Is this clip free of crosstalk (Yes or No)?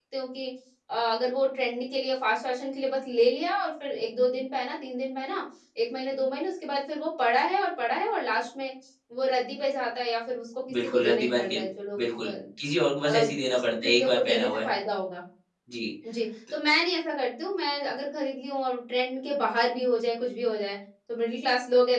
No